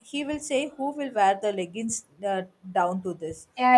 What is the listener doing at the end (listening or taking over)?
taking over